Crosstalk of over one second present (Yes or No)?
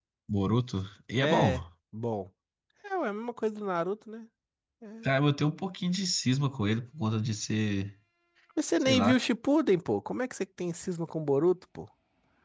No